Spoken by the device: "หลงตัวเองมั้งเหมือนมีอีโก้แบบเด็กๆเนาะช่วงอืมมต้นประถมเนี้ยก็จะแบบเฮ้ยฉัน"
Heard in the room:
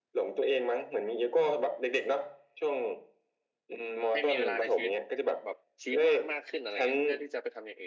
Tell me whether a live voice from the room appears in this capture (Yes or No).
Yes